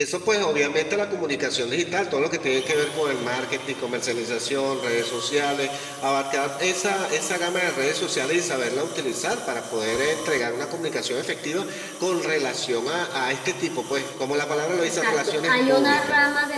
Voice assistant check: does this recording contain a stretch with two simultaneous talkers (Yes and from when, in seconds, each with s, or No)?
Yes, from 14.8 s